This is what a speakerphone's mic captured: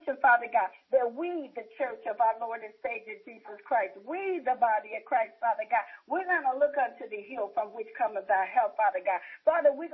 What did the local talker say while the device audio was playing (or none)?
none